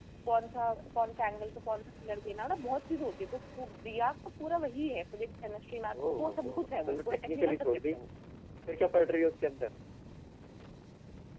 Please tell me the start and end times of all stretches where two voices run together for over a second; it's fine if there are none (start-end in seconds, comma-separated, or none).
6.0-7.9